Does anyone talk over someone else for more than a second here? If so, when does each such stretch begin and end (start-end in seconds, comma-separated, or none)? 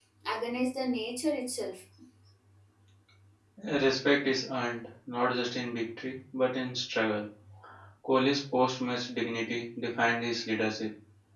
none